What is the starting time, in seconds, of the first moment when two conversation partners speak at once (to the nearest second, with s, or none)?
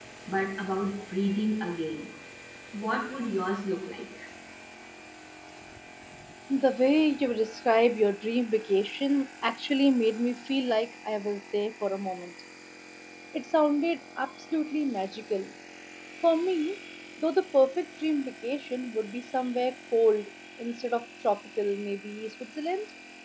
none